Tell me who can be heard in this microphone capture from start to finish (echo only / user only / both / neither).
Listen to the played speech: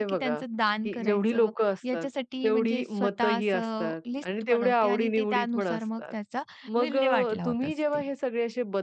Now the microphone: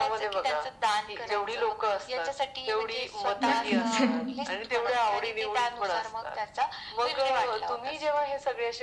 both